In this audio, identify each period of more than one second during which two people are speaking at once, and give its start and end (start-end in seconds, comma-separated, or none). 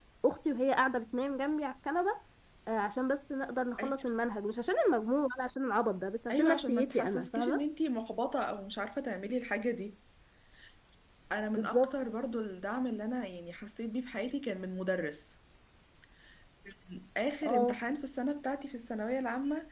6.3-7.6